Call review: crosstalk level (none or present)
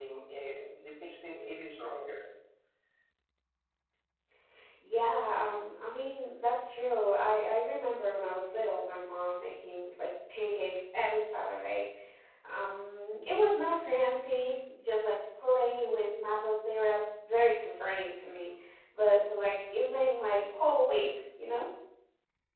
none